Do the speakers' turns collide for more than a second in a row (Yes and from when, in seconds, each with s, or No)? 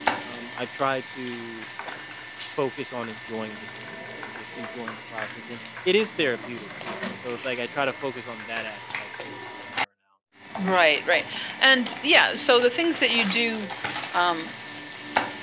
No